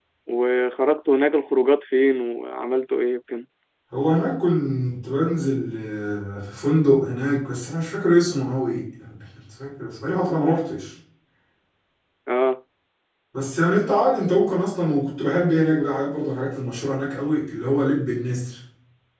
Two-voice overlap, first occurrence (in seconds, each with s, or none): none